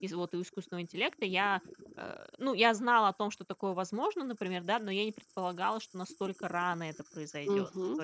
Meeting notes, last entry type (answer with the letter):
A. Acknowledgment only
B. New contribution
A